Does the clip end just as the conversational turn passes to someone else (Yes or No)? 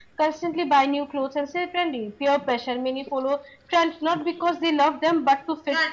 Yes